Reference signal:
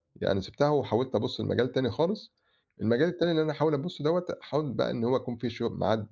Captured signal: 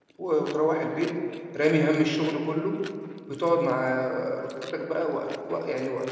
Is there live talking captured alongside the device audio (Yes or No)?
Yes